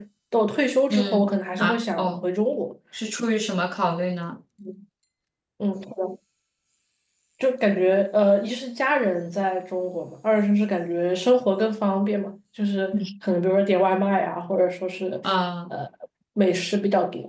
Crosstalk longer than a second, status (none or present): present